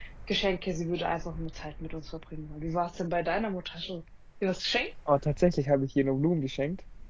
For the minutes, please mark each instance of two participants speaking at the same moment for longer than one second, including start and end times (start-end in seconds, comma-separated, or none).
none